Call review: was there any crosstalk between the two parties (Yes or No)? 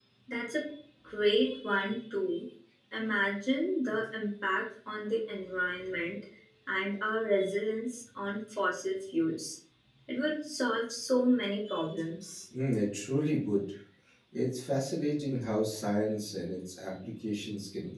No